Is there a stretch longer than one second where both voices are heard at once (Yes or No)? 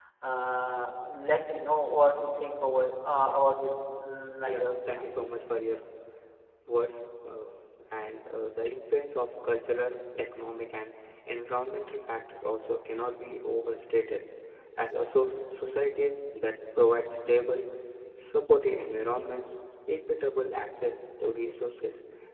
No